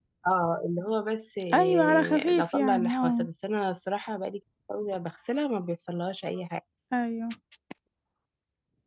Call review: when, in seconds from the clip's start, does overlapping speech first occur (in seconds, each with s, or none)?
1.5 s